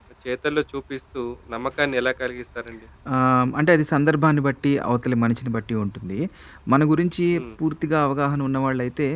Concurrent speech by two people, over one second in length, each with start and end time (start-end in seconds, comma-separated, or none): none